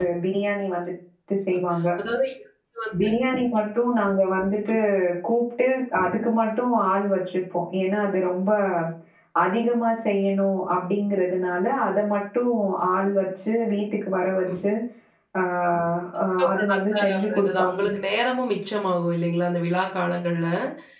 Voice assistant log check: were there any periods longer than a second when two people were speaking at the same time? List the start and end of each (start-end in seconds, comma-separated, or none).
16.3-17.8